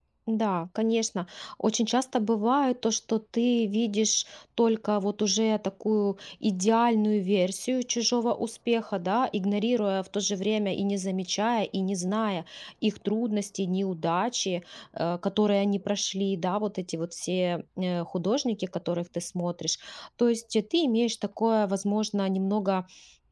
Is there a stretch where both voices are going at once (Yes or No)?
No